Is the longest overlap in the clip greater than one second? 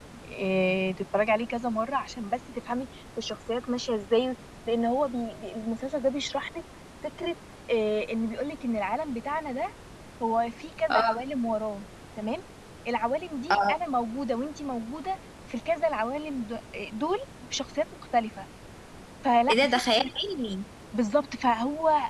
No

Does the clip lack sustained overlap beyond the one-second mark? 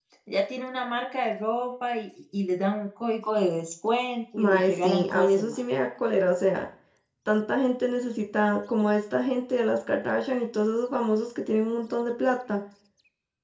No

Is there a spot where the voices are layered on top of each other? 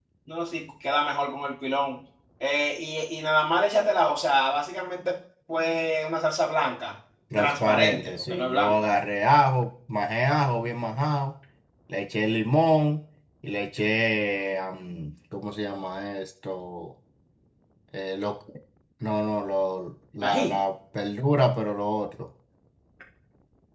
Yes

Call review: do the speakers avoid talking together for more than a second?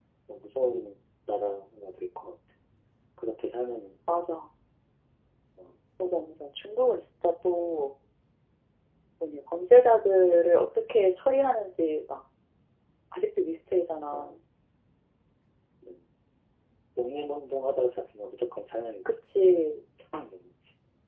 Yes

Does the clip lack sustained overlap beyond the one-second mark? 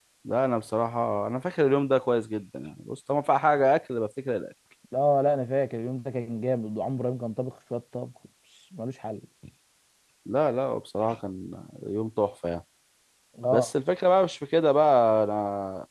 Yes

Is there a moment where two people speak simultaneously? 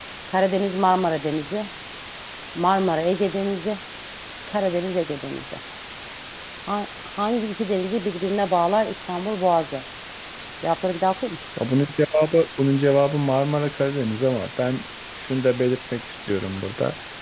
No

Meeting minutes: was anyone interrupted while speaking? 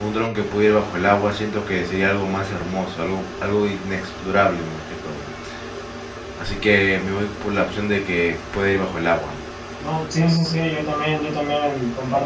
No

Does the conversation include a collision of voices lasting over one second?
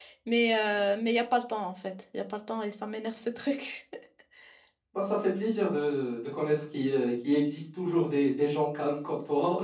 No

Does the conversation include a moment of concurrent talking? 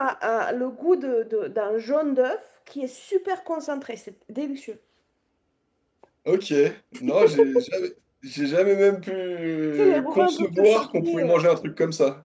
Yes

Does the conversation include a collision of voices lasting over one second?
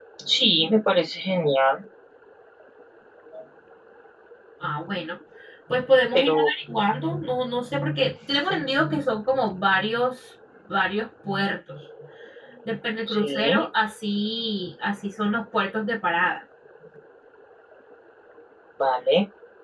No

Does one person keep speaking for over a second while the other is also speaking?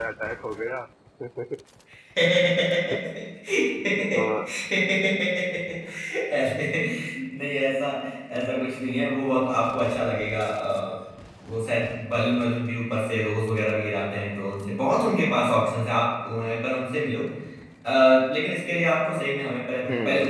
No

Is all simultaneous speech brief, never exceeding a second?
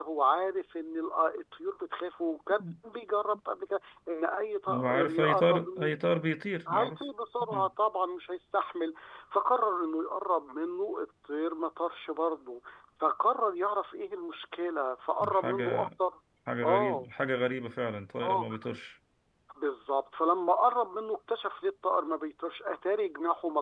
No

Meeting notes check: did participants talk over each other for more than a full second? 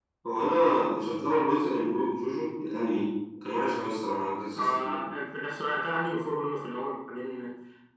No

